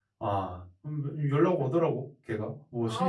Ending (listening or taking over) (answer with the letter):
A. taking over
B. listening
A